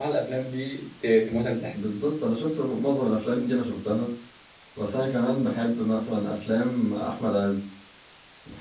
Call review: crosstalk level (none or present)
none